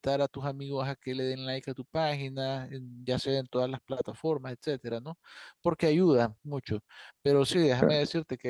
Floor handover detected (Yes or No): No